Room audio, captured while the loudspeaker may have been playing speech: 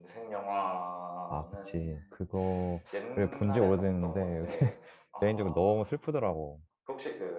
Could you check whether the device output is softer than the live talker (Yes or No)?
Yes